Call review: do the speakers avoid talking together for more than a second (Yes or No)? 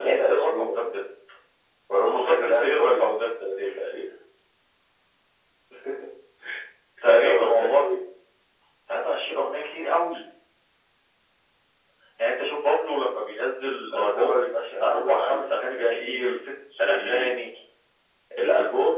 No